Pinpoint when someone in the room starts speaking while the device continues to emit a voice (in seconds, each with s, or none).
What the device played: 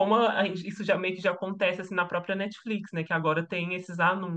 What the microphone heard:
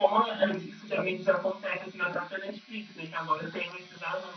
none